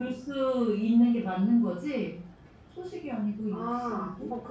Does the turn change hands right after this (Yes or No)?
Yes